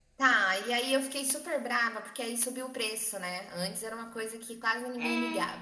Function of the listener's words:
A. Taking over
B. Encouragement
A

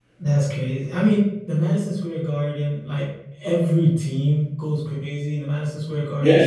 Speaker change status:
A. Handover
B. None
A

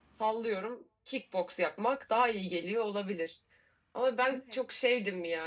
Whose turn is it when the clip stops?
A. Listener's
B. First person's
B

